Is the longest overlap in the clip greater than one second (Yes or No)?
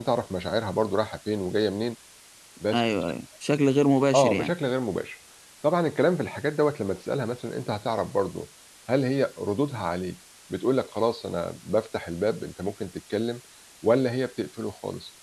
No